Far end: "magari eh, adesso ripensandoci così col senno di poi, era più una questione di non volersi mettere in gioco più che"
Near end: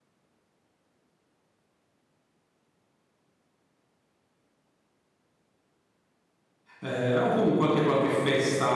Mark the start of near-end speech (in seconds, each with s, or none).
6.8 s